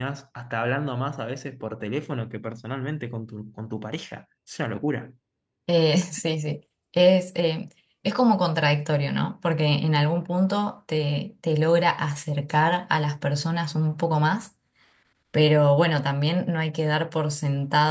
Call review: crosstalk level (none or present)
none